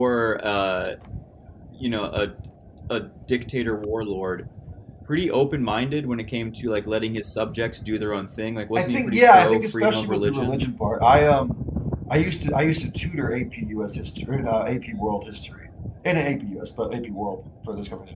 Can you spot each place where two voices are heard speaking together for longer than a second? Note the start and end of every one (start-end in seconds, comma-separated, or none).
8.8-10.6